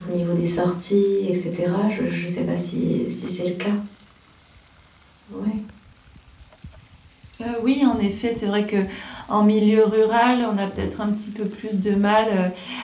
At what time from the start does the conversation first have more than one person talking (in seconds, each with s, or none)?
none